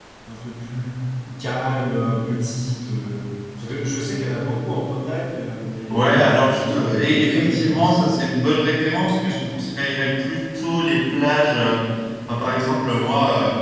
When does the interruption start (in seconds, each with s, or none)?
5.9 s